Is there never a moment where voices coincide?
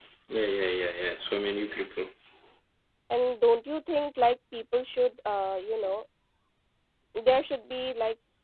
Yes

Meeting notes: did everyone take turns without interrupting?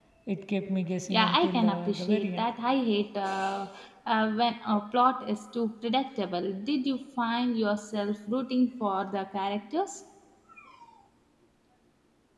No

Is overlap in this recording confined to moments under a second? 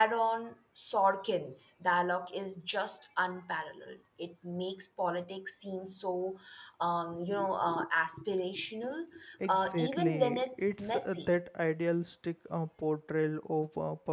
No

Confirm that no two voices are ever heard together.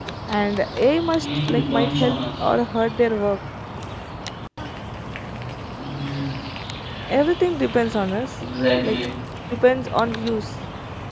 No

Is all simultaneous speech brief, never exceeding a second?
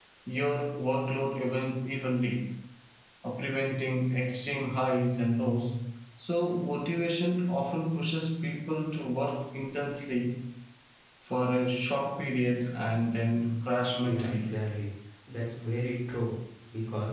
Yes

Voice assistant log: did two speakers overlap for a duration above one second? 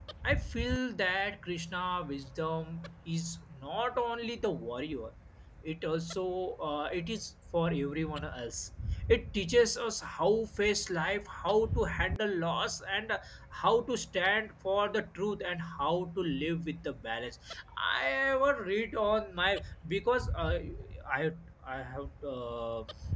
No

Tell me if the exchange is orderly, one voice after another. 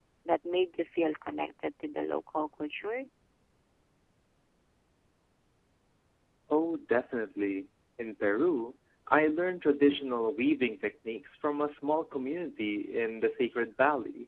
Yes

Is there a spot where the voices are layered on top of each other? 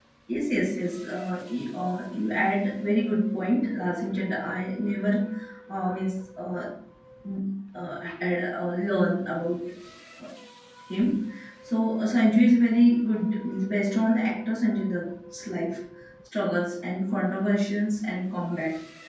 No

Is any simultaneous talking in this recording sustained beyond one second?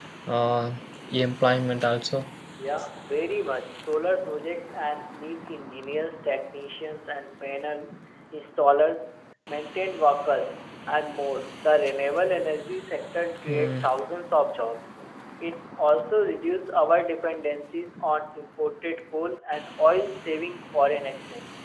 No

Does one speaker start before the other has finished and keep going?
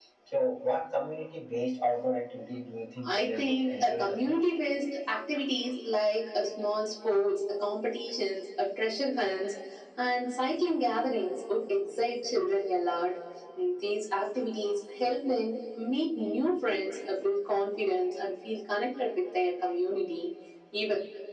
Yes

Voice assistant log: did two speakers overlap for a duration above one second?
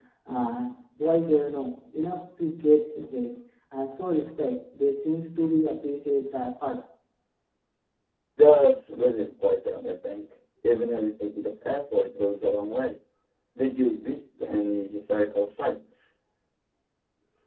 No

